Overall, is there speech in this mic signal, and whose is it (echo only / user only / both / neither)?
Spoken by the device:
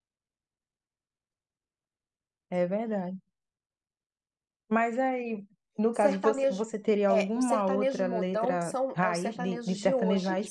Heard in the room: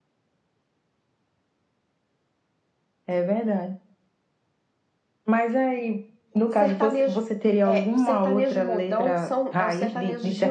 echo only